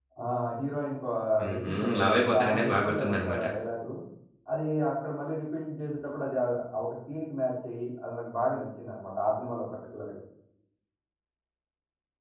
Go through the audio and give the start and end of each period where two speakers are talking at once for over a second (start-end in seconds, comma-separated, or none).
1.5-3.4